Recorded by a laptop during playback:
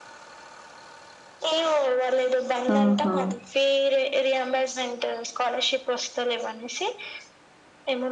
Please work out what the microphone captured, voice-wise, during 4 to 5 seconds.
echo only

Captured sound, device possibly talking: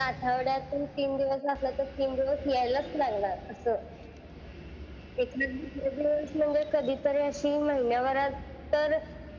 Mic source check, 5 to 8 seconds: echo only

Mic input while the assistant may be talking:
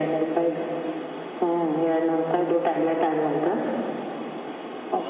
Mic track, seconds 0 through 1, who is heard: echo only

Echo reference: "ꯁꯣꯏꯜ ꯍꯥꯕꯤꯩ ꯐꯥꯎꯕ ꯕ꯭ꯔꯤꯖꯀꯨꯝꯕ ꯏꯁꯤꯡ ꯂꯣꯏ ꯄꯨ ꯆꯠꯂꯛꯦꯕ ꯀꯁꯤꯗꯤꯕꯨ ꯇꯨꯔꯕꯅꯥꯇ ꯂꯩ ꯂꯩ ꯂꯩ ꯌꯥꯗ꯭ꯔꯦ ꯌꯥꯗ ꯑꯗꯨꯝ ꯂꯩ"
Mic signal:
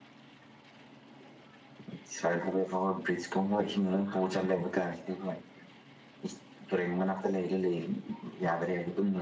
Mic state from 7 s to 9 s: echo only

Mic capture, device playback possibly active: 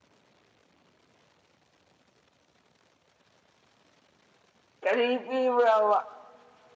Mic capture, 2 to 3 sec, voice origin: neither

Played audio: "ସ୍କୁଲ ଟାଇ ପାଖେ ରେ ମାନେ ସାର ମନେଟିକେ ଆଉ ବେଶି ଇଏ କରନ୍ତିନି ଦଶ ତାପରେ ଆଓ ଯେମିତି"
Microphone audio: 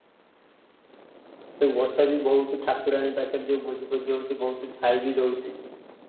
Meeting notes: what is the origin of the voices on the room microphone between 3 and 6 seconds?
user only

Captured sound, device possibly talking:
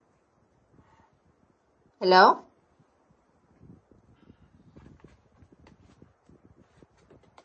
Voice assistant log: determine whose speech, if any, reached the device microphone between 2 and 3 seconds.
user only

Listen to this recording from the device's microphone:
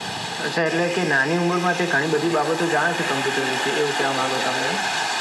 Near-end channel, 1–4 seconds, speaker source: both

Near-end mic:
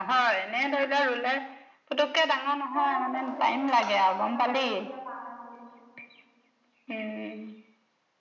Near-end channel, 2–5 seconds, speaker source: both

